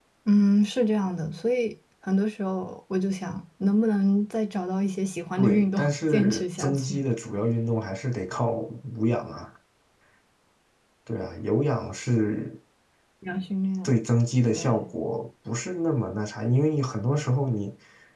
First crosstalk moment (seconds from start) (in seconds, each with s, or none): 5.4 s